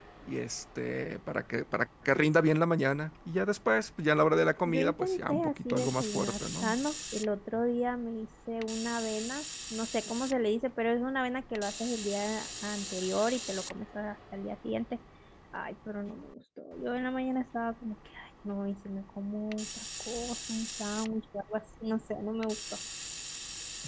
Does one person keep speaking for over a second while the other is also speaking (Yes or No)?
Yes